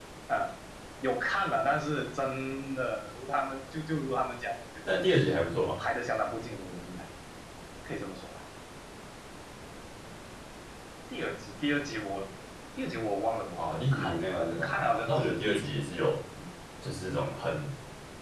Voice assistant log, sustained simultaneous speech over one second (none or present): present